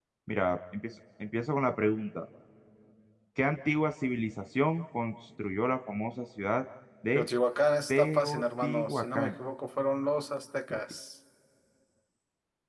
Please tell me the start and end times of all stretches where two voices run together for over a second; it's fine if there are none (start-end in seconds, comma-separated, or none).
7.9-9.3